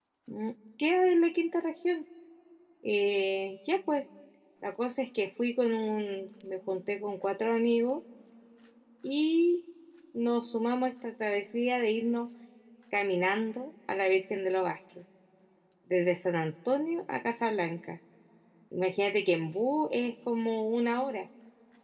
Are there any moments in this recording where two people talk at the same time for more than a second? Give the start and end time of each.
none

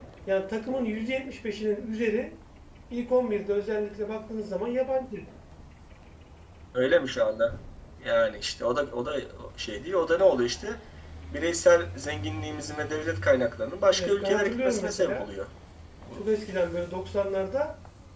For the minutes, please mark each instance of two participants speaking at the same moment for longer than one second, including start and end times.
13.9-15.3

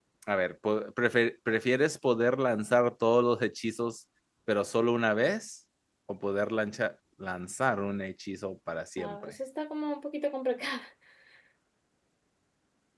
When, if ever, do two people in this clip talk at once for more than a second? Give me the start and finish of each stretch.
none

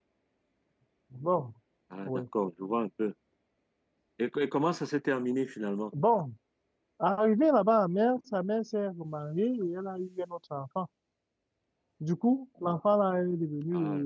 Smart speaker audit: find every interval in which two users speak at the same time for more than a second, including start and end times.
none

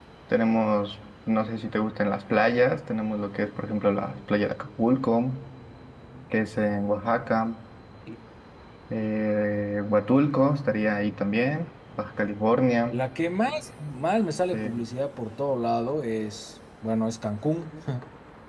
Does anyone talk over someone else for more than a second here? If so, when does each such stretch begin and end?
none

